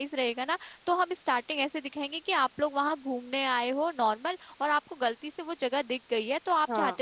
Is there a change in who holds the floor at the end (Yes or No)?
No